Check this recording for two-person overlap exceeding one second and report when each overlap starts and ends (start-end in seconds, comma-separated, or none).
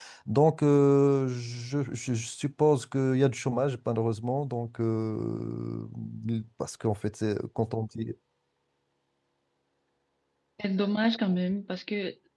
none